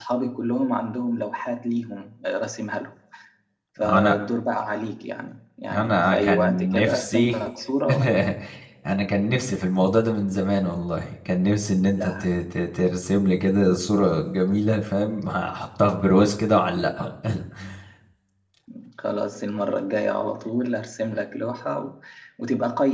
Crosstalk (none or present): present